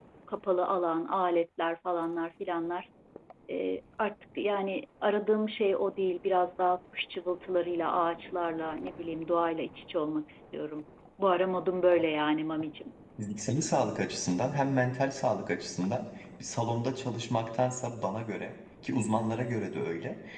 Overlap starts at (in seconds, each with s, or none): none